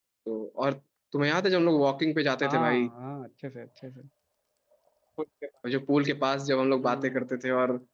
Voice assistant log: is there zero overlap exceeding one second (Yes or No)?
Yes